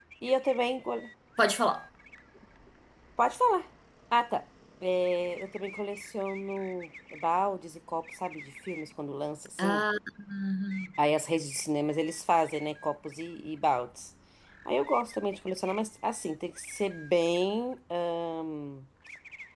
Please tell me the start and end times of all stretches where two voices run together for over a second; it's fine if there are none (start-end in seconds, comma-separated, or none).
none